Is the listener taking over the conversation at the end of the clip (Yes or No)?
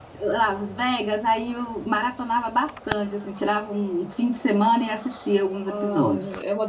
Yes